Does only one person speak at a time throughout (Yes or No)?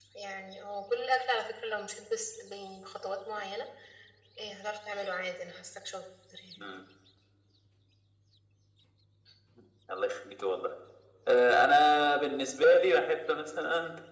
Yes